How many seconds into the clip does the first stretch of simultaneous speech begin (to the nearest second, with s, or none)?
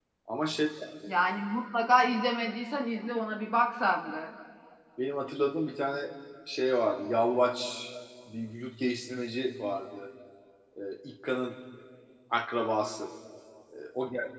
none